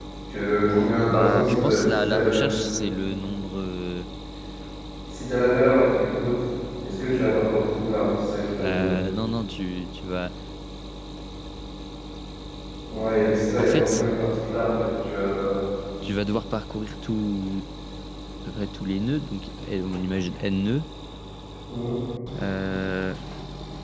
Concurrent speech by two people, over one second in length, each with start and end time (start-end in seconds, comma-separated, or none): 1.1-2.5